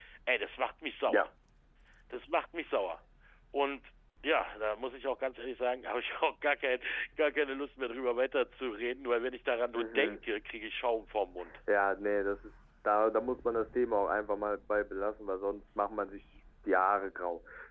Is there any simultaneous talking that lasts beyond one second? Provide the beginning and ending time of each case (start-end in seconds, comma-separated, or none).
none